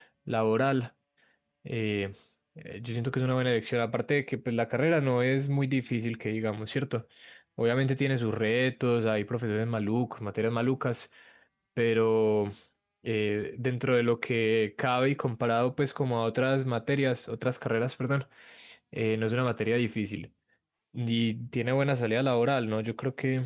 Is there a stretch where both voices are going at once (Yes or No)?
No